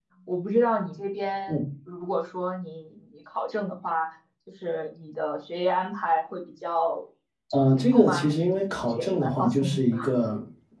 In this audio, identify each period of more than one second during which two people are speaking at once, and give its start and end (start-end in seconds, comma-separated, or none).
7.7-10.0